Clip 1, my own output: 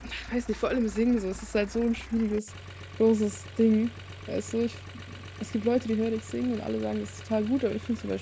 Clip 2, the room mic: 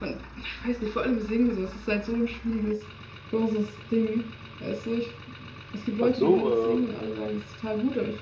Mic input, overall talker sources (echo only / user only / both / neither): both